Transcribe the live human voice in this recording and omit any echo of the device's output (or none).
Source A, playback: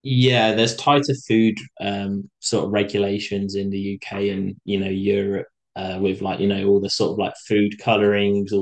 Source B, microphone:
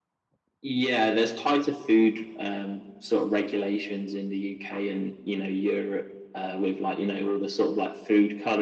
none